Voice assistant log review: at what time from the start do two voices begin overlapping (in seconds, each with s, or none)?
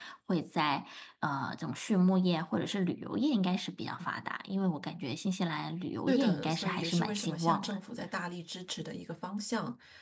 6.1 s